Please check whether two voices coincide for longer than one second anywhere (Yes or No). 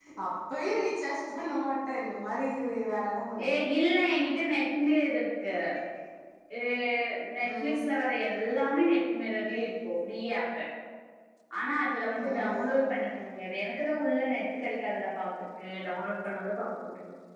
No